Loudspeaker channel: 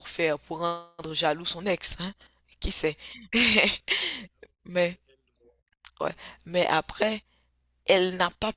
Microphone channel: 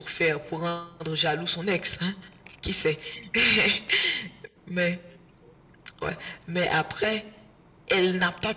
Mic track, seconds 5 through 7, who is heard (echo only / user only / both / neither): echo only